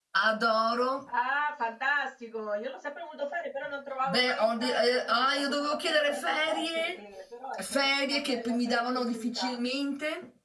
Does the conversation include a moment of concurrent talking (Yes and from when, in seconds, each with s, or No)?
Yes, from 4.0 s